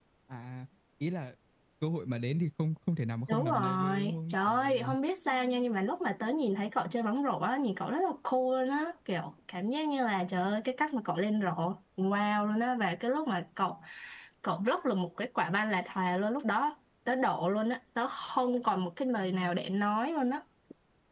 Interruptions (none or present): present